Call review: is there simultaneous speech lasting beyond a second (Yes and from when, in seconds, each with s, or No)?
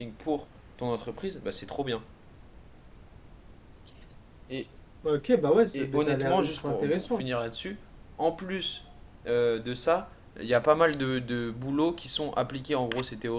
Yes, from 5.7 s